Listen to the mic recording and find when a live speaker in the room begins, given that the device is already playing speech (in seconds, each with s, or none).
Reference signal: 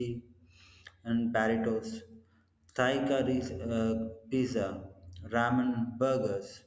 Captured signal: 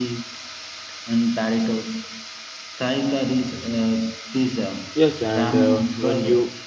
4.9 s